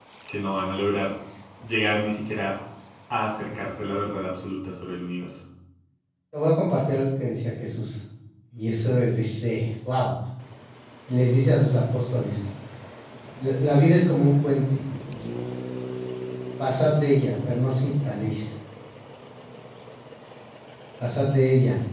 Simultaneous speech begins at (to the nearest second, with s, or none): none